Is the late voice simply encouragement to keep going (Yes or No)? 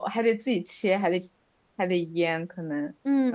No